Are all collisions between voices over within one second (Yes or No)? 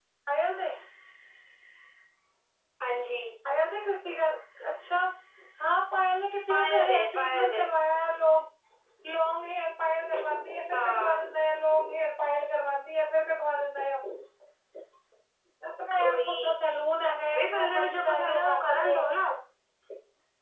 No